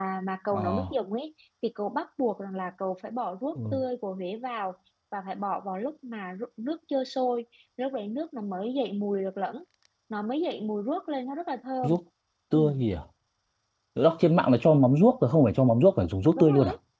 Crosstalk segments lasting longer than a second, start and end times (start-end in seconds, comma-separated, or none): none